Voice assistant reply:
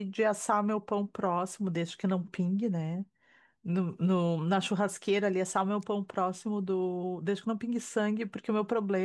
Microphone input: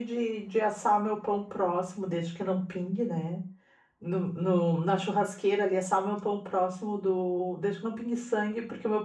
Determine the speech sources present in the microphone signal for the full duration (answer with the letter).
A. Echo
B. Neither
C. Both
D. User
A